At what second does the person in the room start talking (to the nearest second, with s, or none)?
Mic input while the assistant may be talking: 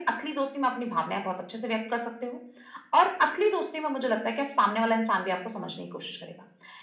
none